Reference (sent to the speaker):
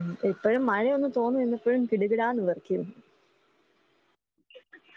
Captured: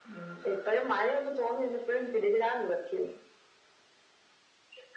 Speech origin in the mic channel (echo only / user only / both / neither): echo only